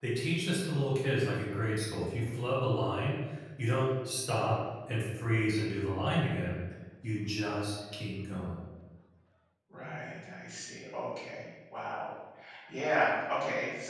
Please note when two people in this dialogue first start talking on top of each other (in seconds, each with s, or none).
none